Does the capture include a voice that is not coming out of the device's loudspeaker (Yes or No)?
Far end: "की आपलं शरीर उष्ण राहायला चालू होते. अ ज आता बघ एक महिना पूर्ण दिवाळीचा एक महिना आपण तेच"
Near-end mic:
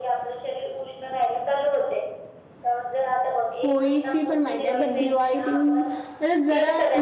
Yes